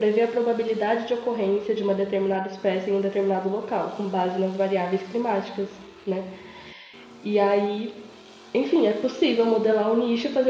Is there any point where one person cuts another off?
No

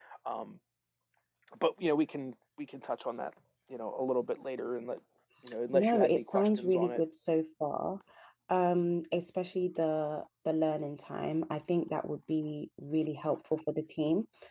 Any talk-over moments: Yes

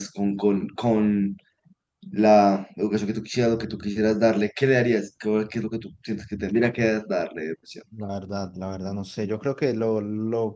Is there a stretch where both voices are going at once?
No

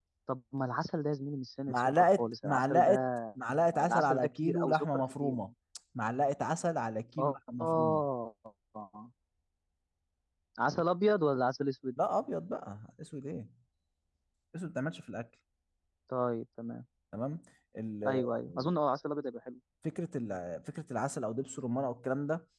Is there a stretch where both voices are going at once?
Yes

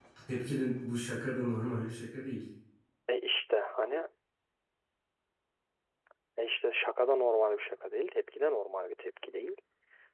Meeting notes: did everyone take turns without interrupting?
Yes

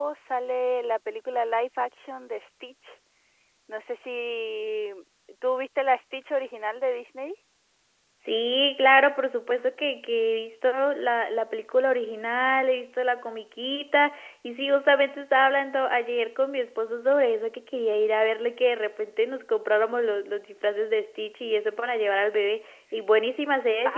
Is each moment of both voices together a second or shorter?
Yes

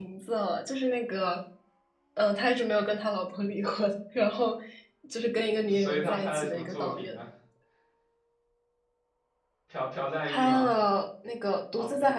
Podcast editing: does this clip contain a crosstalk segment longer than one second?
Yes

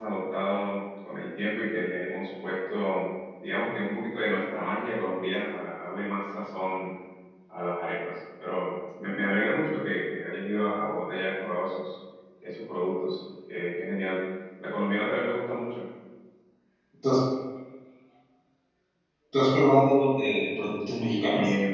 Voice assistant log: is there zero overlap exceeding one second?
Yes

